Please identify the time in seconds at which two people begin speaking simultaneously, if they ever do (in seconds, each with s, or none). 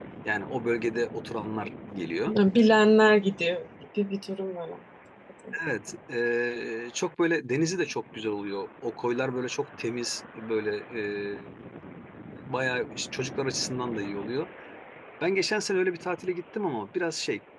none